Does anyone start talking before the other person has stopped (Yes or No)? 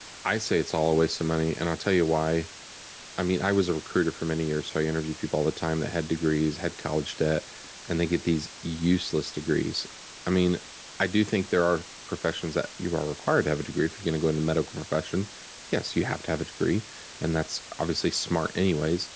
No